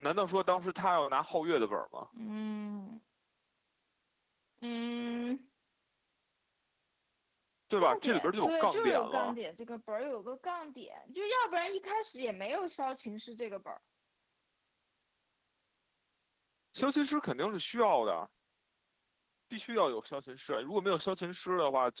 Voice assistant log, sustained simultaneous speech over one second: present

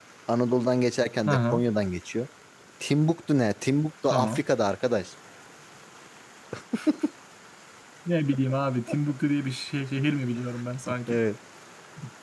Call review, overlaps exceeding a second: none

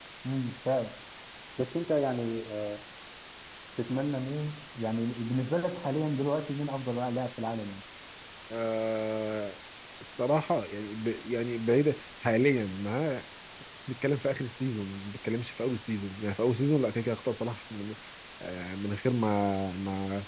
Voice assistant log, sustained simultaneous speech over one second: none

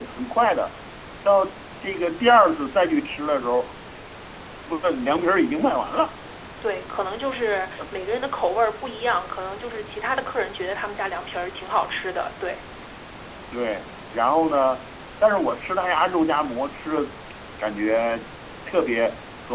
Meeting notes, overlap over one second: none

